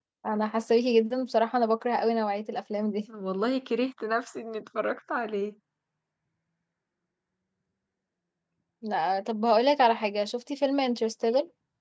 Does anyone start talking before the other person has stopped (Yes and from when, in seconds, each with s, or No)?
No